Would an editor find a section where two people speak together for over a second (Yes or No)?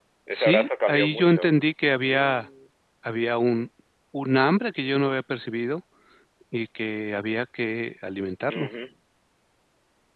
Yes